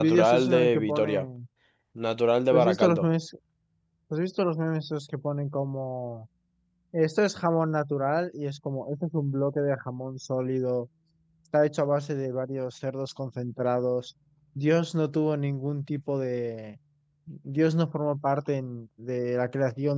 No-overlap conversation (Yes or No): No